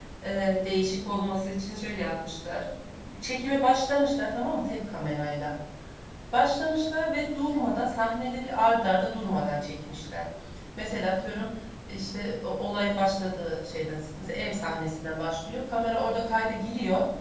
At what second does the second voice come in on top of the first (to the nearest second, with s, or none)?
none